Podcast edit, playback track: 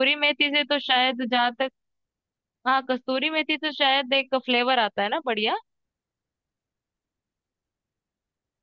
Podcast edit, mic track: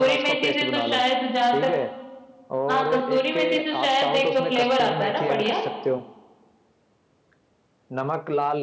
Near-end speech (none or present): present